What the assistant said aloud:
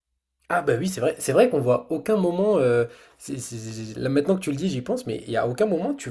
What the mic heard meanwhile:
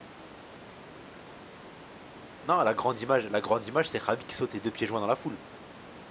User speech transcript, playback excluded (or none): Non, la grande image, la grande image, c'est Khabib qui saute les deux pieds joints dans la foule.